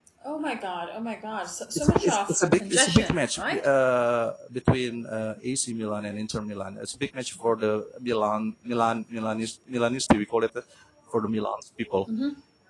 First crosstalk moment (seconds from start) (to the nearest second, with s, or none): 2 s